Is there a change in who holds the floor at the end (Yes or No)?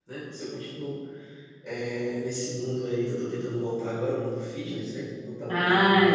Yes